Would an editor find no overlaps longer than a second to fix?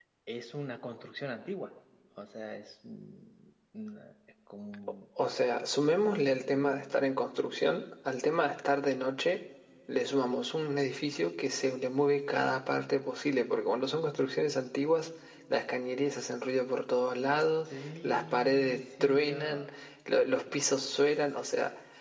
No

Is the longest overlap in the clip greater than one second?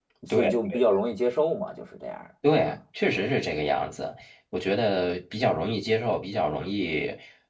No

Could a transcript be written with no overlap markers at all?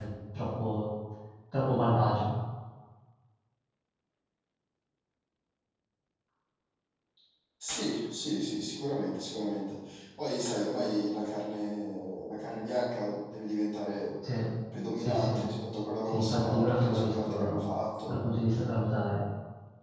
No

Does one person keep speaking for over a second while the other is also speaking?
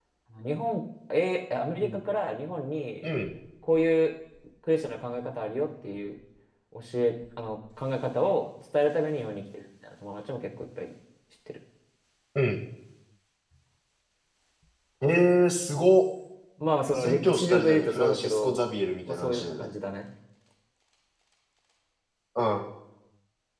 Yes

